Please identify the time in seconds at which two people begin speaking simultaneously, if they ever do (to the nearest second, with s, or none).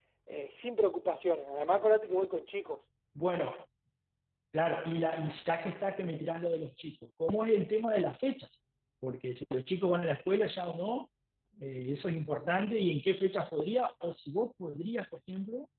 none